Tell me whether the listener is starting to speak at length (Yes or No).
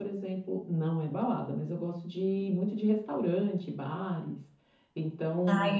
Yes